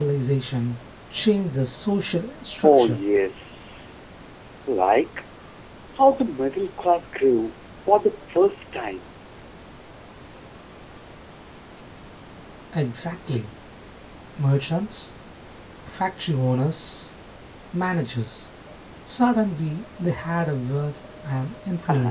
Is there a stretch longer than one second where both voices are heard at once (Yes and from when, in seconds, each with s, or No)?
No